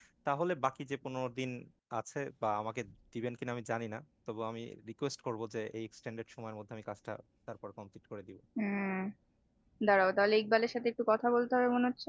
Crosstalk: none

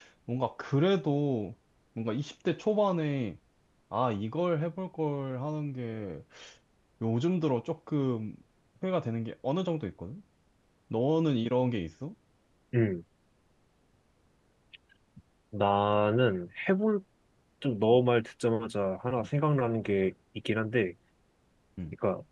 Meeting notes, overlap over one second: none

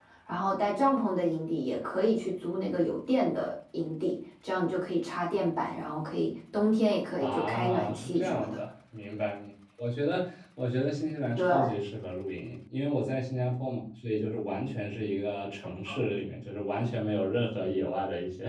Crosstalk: present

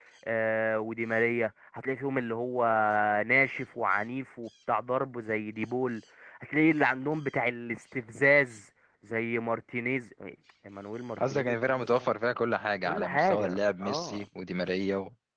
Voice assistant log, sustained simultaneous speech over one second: present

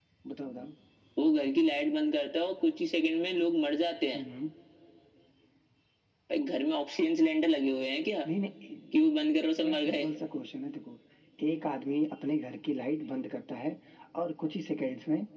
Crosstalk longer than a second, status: none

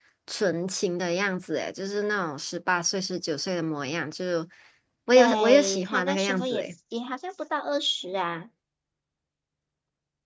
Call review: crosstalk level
present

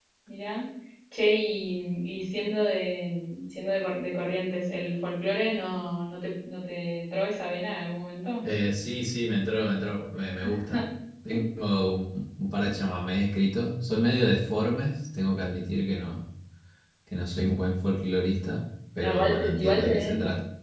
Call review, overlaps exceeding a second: present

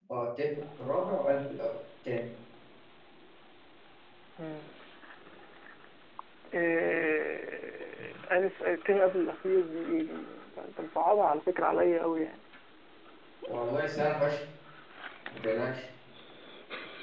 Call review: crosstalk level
none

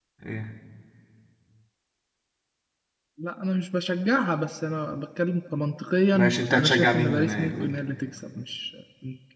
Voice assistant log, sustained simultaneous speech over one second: present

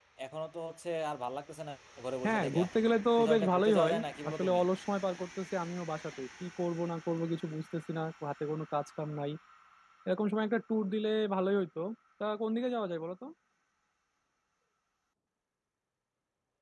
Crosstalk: present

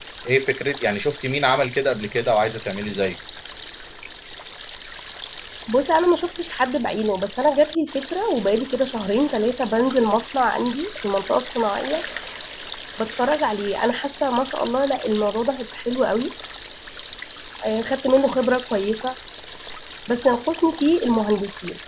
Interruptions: none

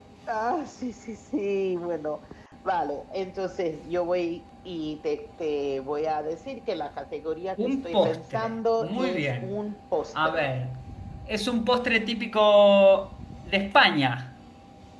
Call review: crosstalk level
present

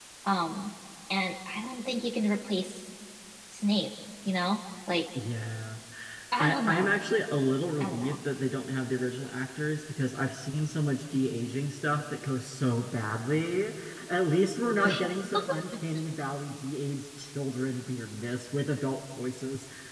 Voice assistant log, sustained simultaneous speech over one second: none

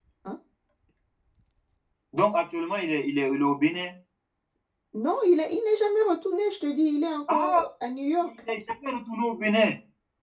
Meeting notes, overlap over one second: none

